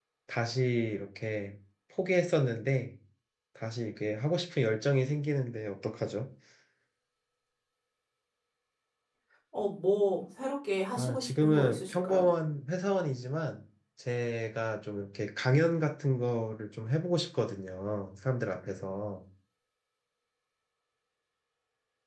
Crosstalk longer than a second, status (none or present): present